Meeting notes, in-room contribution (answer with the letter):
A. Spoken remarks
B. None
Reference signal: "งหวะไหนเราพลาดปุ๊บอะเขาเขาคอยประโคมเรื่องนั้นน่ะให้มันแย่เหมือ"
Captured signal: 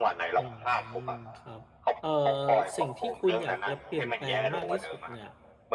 A